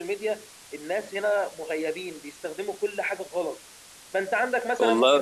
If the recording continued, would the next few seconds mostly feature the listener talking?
No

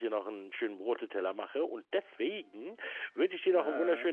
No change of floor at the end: Yes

